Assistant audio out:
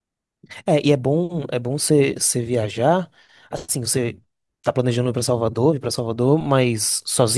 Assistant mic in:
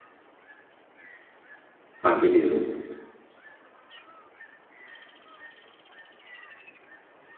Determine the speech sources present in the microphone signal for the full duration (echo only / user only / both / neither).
user only